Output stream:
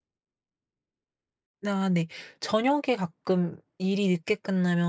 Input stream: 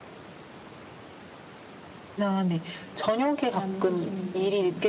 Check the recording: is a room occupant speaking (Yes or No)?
Yes